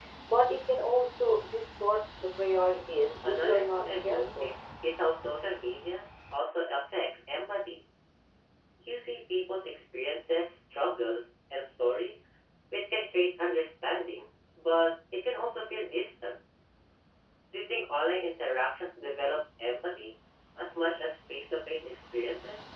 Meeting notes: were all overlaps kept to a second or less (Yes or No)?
No